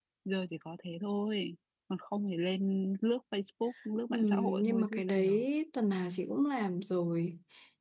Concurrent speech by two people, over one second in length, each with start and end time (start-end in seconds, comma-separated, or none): 4.1-5.4